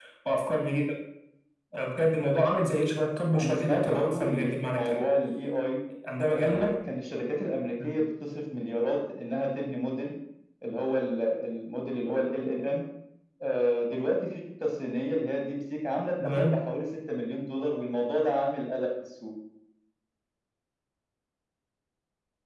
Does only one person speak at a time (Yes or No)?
No